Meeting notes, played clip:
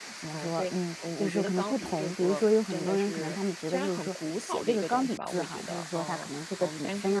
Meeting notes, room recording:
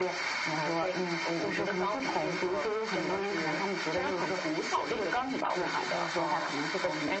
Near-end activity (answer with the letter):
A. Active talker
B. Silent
B